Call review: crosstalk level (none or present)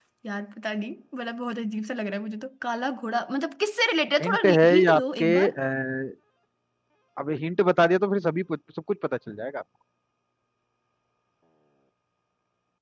present